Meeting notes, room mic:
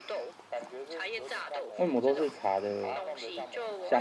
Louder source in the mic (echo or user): user